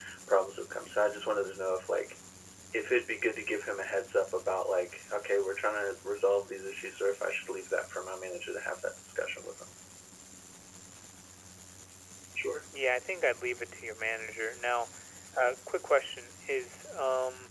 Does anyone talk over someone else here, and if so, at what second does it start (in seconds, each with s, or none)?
none